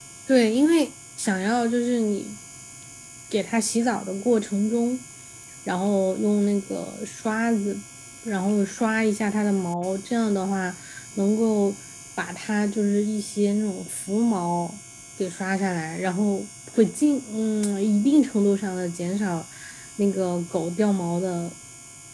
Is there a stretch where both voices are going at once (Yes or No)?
No